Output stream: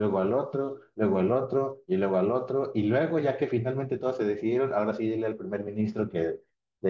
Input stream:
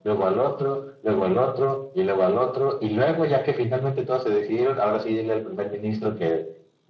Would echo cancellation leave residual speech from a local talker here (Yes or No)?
No